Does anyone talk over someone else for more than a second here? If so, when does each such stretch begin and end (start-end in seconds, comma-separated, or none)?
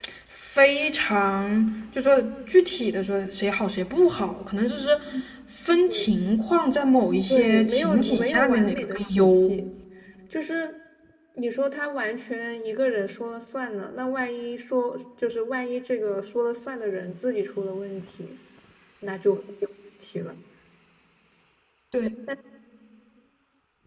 7.3-9.5